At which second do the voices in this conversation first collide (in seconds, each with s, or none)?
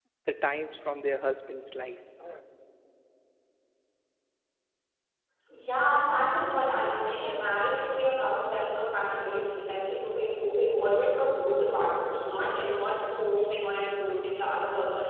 none